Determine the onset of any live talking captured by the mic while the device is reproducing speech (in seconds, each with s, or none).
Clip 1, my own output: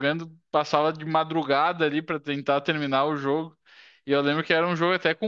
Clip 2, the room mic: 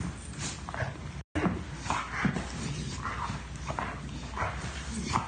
none